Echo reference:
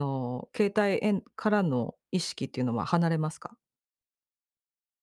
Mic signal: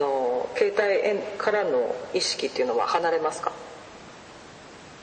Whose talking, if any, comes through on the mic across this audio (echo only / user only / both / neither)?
echo only